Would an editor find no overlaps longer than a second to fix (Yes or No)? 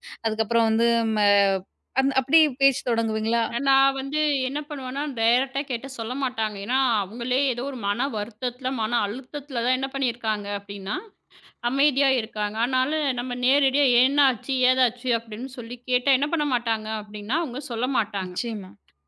Yes